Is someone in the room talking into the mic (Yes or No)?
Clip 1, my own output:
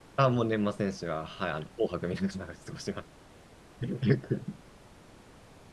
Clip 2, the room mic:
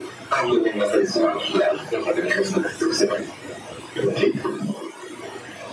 No